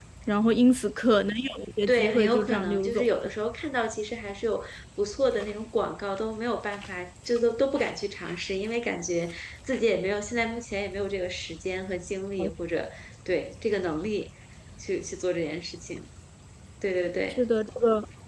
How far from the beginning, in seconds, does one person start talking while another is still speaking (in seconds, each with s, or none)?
1.9 s